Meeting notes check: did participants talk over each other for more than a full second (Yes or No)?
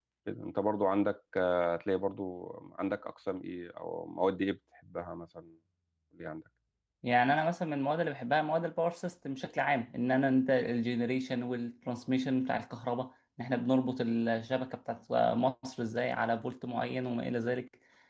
No